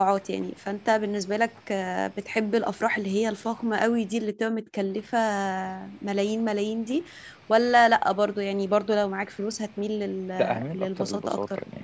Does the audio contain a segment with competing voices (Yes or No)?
Yes